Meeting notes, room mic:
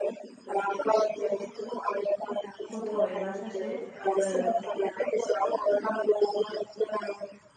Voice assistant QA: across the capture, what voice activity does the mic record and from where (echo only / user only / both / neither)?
both